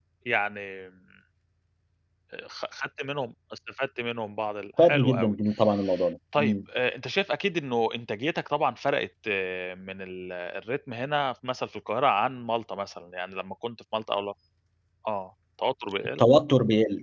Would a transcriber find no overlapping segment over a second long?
Yes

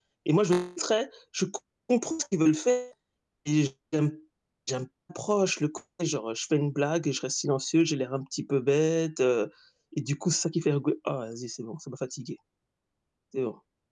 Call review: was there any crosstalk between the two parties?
No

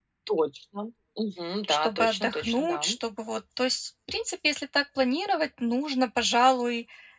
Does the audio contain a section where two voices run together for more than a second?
Yes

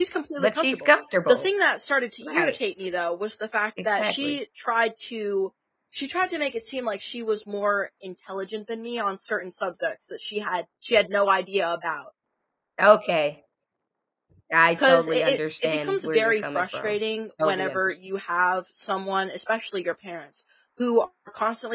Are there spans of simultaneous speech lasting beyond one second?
Yes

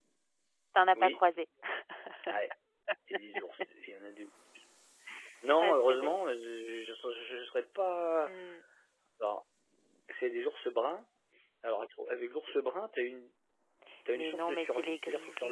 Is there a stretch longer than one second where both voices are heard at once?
Yes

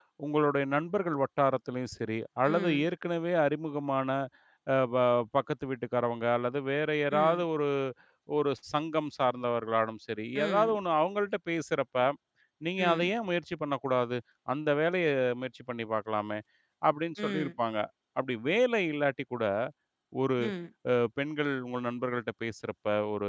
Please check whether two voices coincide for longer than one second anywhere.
No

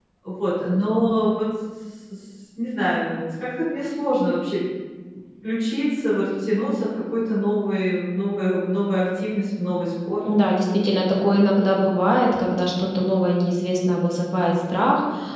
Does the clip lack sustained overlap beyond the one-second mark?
Yes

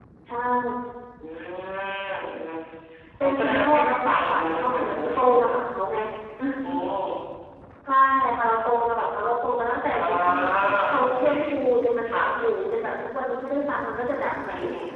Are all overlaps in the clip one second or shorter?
No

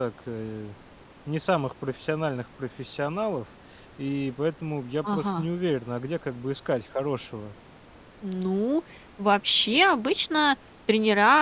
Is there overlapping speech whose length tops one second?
No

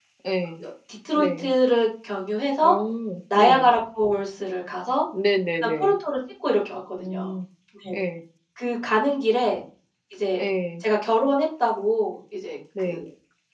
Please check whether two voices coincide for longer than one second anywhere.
No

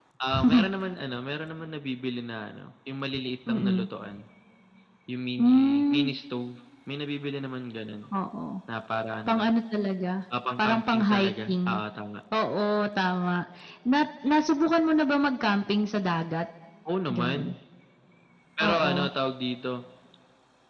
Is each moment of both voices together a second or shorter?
No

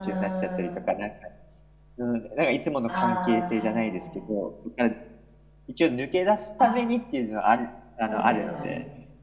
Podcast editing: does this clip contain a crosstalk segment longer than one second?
Yes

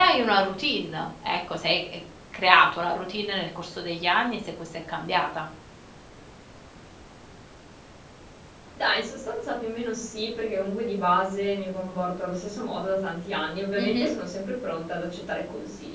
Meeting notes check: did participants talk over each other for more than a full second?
No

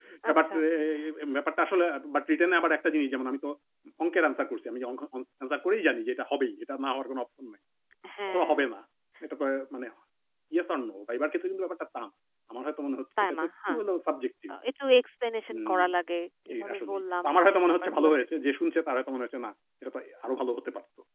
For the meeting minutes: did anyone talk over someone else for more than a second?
Yes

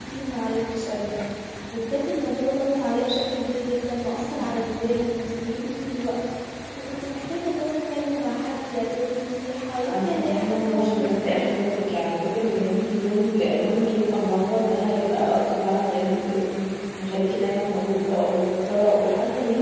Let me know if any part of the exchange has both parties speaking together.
Yes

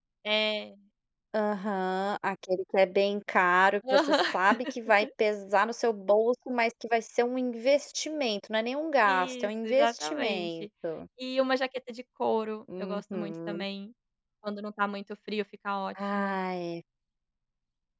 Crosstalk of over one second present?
Yes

